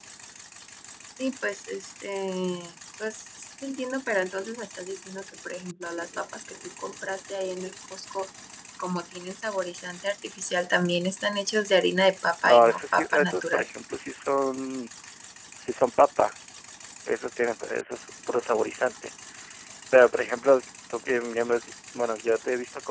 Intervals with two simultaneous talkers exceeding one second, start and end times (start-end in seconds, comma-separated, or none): 12.4-13.7